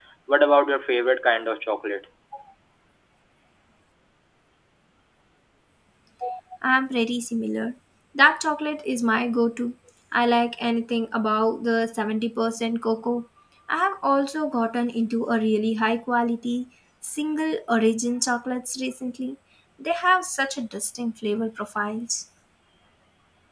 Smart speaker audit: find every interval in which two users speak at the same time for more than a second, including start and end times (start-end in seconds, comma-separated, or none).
none